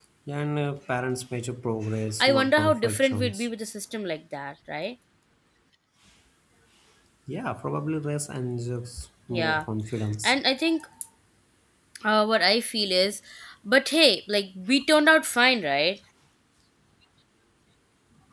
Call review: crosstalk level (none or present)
present